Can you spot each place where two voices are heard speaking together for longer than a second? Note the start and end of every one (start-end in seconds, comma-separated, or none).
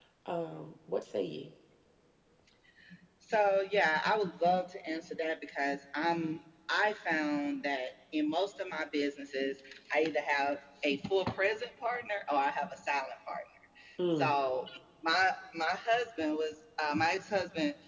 none